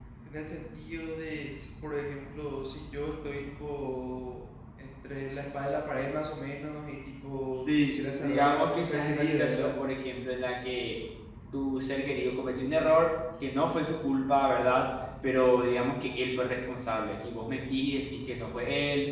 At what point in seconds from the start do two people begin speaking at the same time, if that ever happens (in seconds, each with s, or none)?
7.6 s